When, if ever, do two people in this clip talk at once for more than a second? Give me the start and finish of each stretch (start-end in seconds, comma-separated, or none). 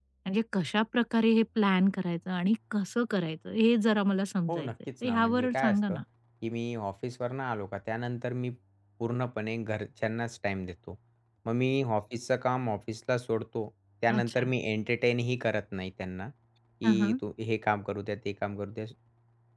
4.5-6.0